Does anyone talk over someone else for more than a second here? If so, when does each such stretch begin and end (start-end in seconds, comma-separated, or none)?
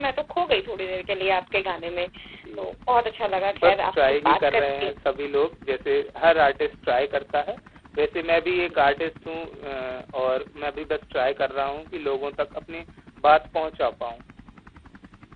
3.6-4.9